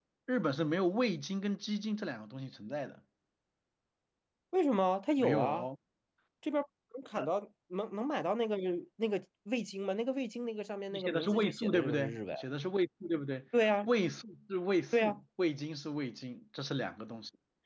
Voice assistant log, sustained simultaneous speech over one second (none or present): present